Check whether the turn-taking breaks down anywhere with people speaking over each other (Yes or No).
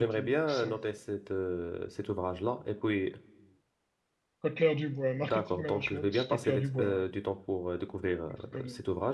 Yes